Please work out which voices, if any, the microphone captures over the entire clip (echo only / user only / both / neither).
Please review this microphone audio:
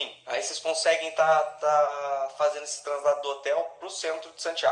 echo only